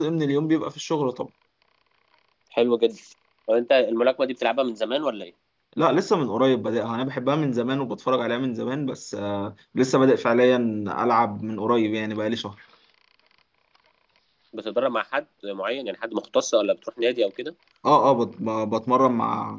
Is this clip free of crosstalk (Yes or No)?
Yes